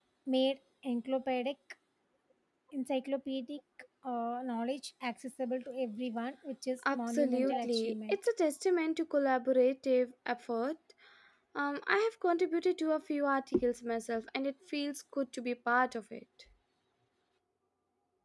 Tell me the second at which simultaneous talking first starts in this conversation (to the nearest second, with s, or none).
7 s